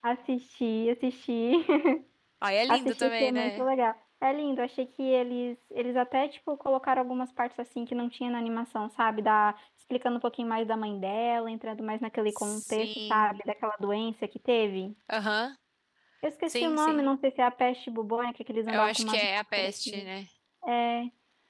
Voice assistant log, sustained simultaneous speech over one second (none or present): present